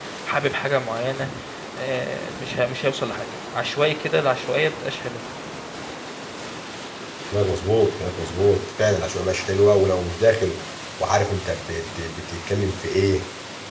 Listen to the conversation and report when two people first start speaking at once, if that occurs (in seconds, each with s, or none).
none